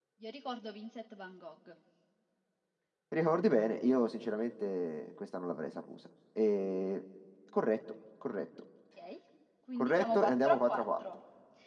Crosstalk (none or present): present